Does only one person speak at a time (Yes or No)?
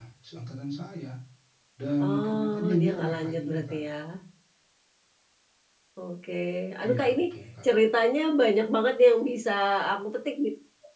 No